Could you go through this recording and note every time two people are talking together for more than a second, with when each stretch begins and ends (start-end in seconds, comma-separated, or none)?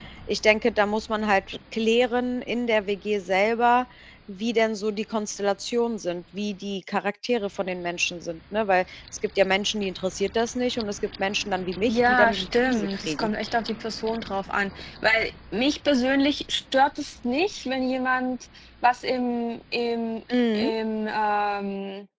11.9-13.3